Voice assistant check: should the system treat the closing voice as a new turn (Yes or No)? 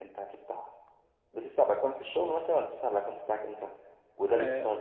Yes